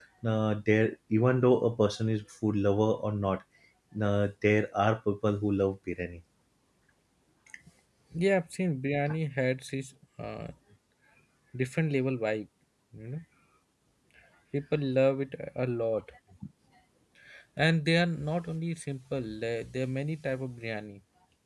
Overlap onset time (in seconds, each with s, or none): none